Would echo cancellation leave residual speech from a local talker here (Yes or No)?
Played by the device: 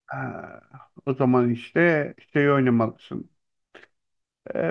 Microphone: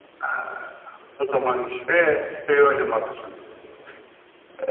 No